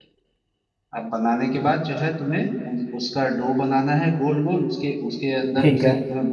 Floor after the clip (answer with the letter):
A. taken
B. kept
B